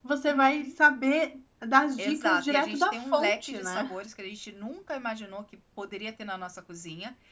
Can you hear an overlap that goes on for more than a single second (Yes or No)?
Yes